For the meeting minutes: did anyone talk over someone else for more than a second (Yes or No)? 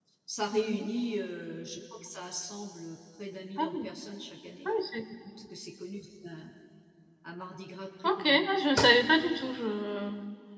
No